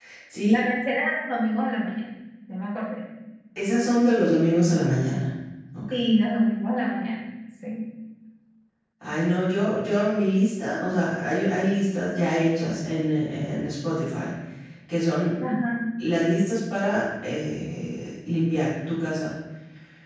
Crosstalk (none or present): none